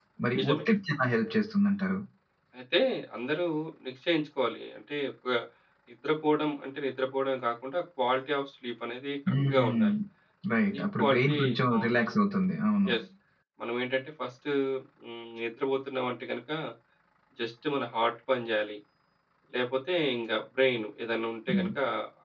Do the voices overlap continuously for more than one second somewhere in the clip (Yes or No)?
Yes